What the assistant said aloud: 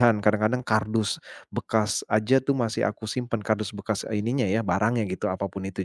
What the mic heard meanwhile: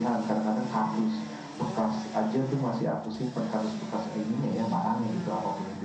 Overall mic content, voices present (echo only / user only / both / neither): echo only